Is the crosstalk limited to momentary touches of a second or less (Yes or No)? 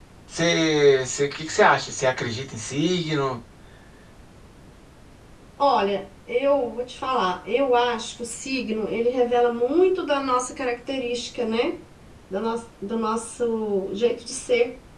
Yes